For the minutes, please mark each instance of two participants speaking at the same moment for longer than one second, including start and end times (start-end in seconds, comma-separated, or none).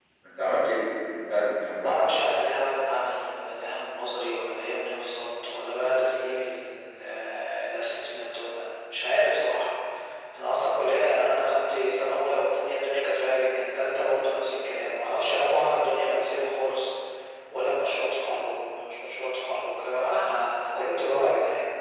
none